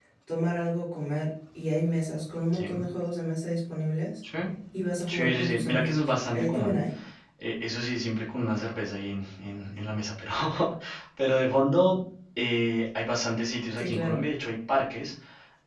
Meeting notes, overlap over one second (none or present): present